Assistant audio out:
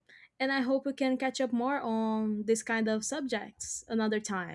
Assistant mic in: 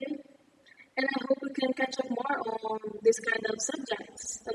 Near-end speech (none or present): none